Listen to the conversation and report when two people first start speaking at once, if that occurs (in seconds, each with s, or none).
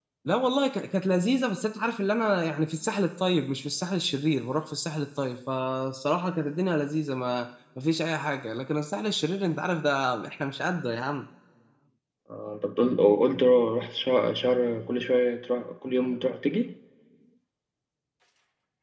none